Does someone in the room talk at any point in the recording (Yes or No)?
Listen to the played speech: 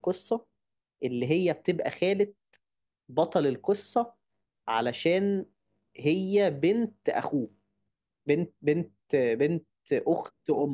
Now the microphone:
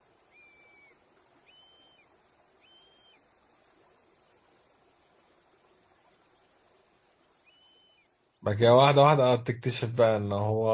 Yes